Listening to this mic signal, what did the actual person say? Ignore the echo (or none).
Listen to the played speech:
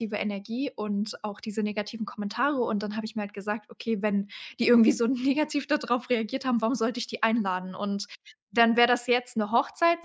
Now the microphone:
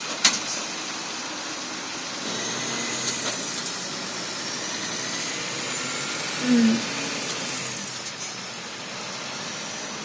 Mhm.